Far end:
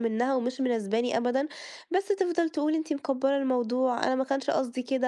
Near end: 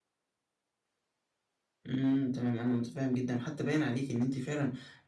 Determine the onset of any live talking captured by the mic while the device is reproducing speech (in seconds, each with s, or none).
1.9 s